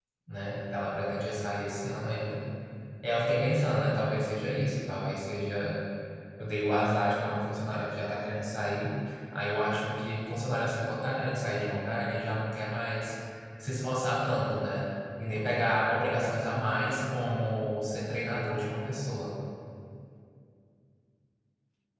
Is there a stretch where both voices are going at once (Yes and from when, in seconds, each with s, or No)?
No